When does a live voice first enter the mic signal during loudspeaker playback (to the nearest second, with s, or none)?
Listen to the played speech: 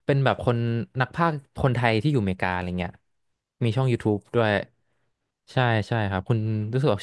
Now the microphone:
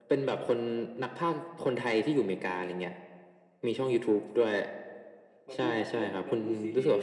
5 s